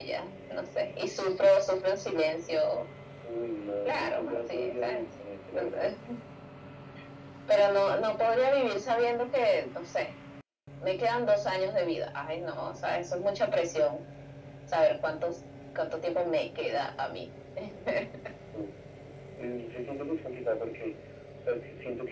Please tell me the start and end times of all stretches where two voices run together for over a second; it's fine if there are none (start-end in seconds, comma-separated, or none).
3.9-5.1